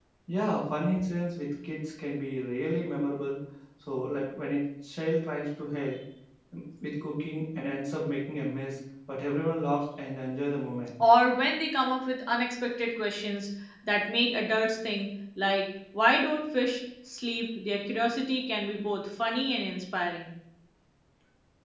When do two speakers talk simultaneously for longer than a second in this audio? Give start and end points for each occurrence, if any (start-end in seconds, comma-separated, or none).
none